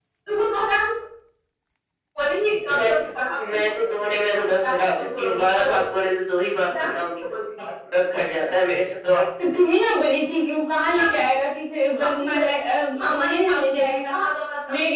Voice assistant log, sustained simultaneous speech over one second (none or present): present